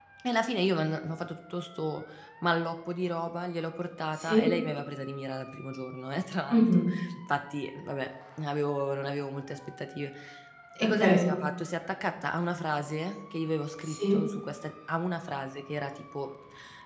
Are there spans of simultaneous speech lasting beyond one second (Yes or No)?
No